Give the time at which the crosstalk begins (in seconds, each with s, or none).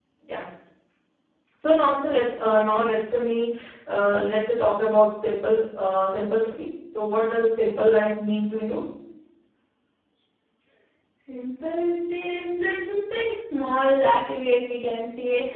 none